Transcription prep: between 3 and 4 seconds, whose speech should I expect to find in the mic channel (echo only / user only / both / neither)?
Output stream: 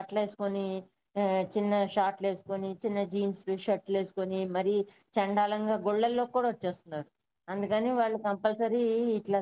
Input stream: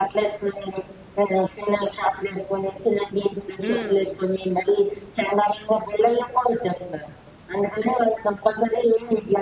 both